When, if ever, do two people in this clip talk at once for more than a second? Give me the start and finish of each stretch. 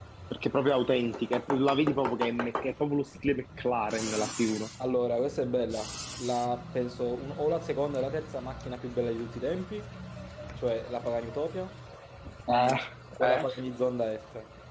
none

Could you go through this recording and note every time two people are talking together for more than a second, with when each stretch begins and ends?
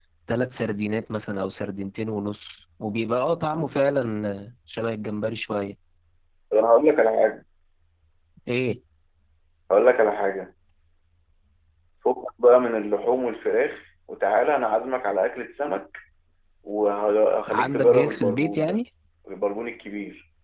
17.5-18.8

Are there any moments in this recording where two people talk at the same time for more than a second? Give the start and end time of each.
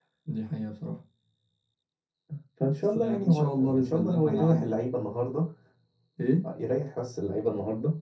2.8-4.8

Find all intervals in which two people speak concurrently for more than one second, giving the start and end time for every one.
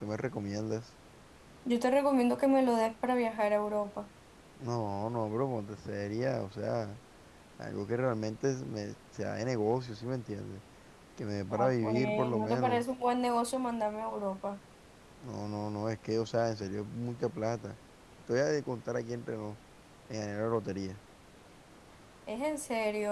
11.5-12.8

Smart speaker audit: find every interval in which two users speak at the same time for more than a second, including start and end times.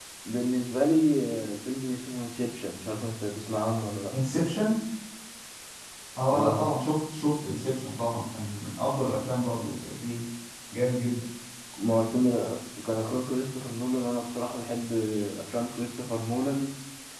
none

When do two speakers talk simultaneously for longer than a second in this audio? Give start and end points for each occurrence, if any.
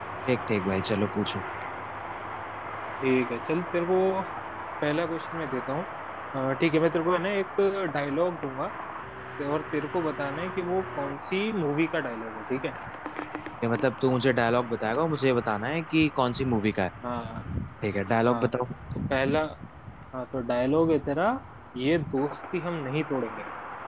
none

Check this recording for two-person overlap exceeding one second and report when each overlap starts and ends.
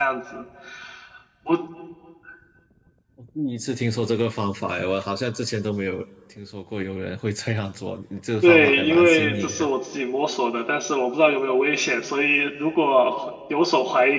8.4-9.7

